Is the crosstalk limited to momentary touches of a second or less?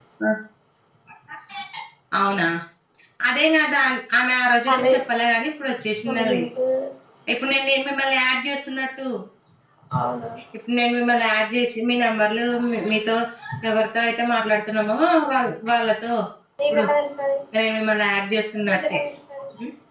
Yes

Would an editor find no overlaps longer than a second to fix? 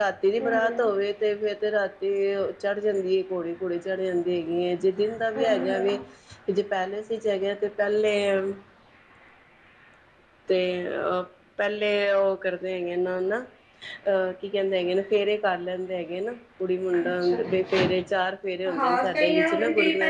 No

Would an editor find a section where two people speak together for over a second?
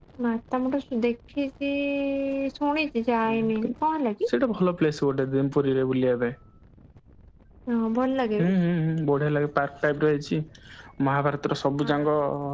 No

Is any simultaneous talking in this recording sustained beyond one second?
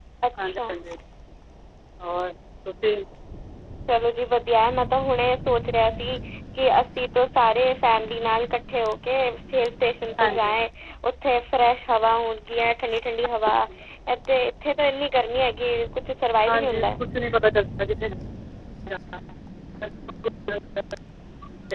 No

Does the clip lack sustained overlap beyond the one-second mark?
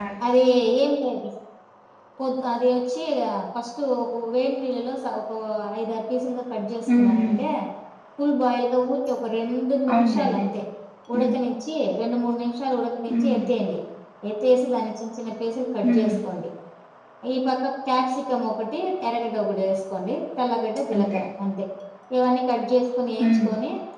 Yes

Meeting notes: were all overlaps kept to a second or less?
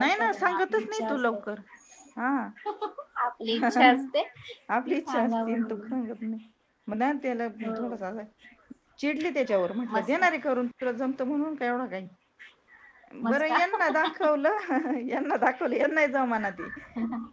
No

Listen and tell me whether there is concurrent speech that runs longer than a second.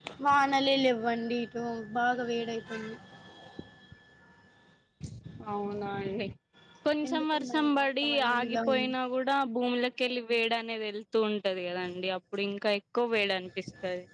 Yes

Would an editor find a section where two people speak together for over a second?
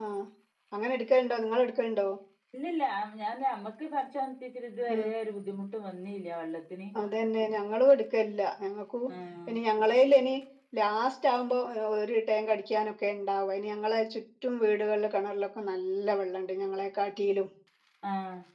No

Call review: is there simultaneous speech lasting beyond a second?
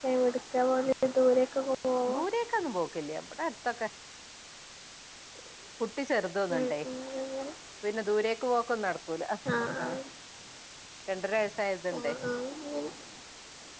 No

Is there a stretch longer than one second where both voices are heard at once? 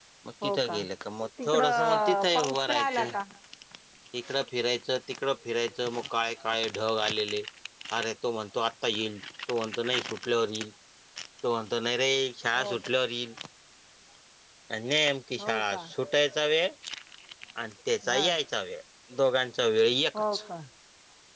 Yes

